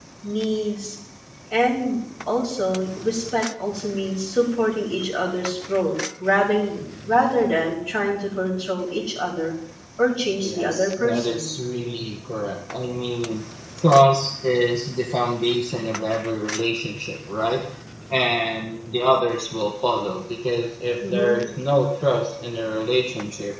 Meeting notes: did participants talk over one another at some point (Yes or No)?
Yes